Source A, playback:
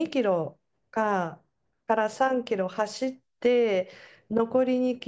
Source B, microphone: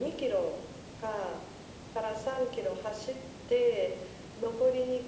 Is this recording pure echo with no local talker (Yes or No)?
Yes